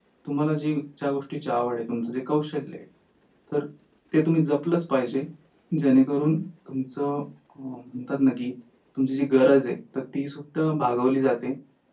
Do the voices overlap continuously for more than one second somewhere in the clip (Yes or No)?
No